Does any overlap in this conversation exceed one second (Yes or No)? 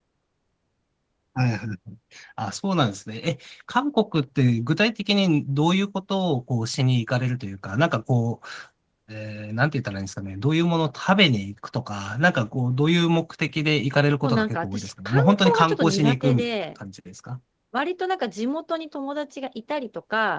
Yes